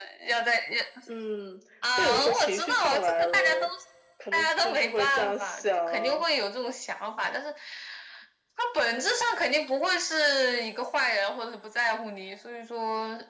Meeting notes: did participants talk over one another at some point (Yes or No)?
Yes